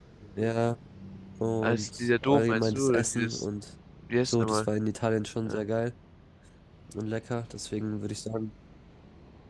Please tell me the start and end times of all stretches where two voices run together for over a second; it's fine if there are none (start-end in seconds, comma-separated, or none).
1.6-3.4